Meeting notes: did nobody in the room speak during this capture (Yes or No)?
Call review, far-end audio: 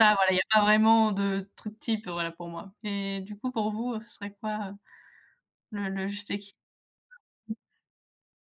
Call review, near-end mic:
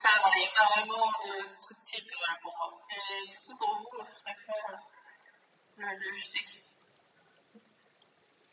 Yes